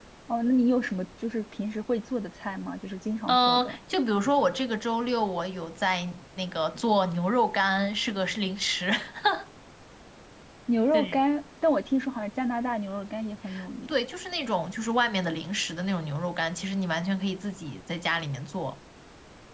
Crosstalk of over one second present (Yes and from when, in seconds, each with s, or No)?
No